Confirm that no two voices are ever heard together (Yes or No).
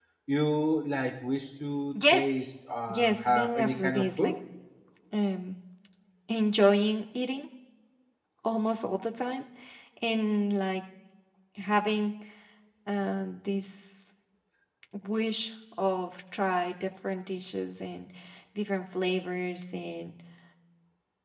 No